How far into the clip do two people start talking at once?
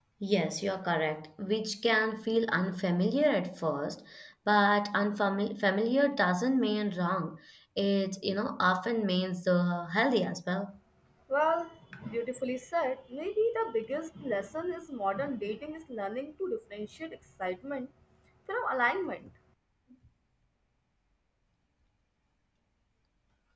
none

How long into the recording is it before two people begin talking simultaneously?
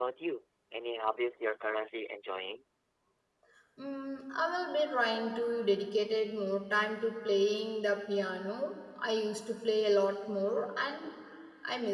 none

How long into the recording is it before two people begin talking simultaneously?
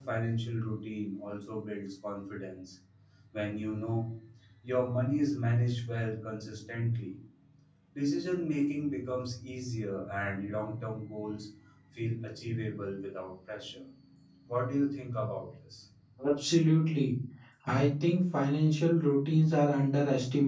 none

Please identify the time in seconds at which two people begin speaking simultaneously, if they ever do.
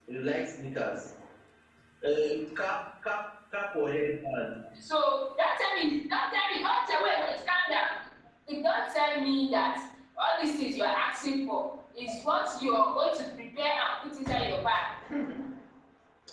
none

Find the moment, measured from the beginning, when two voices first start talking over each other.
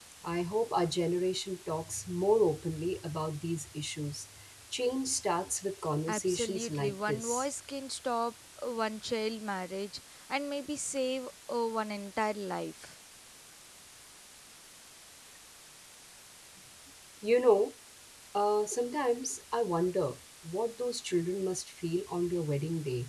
6.1 s

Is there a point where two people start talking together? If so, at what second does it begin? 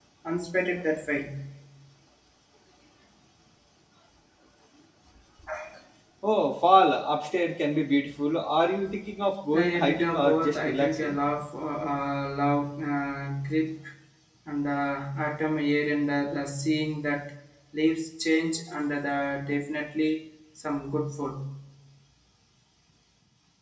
9.5 s

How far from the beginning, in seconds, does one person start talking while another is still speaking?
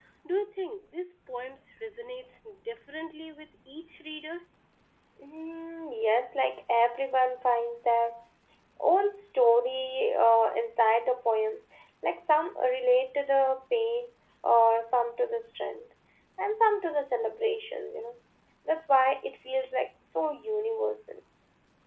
none

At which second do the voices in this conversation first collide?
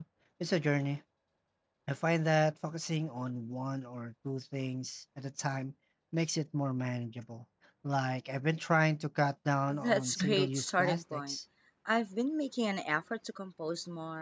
9.7 s

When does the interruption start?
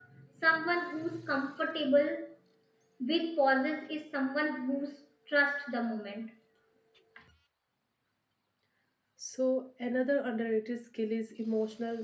none

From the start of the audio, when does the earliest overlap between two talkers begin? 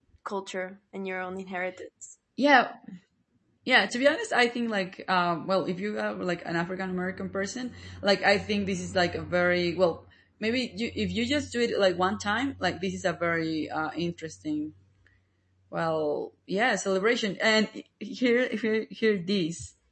none

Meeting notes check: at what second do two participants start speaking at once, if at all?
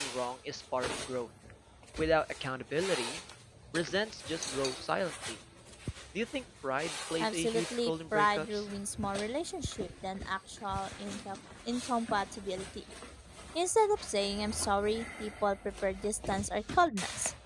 7.2 s

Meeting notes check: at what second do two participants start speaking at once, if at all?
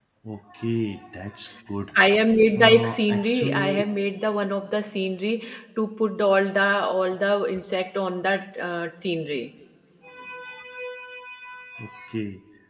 2.6 s

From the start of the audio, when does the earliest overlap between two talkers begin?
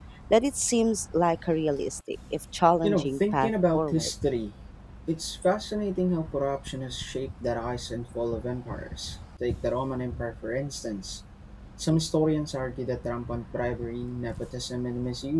2.8 s

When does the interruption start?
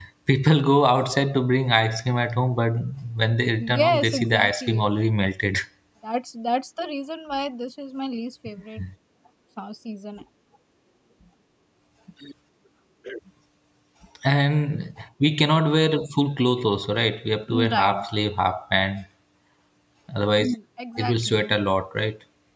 3.6 s

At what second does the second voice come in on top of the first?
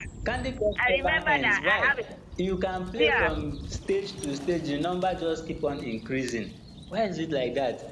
0.8 s

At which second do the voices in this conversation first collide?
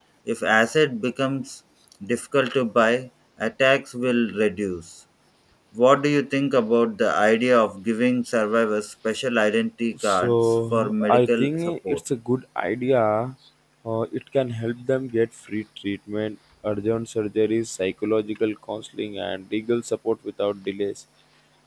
9.9 s

